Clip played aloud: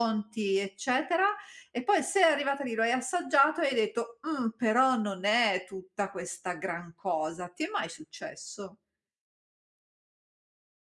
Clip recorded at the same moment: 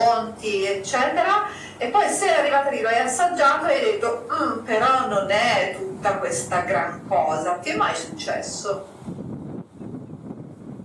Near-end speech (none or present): none